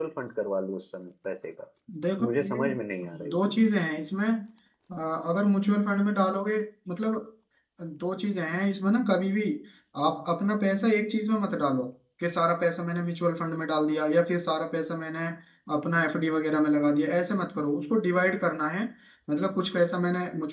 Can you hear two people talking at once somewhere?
Yes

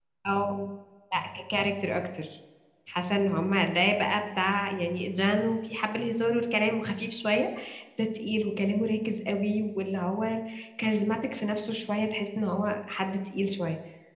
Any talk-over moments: No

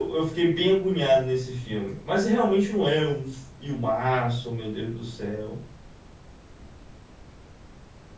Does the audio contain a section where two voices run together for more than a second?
No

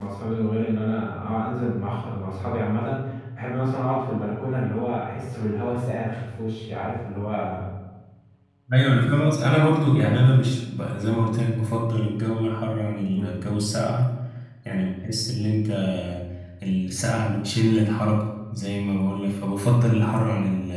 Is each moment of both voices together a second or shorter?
Yes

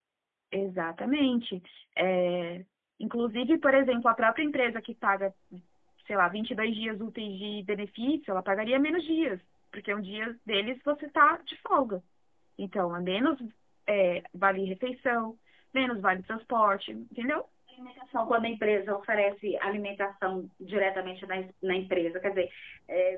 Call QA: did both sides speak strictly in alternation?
Yes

